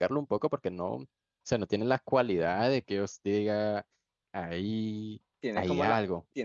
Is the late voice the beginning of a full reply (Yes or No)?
Yes